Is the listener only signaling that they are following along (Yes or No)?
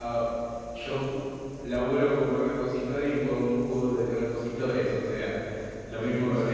Yes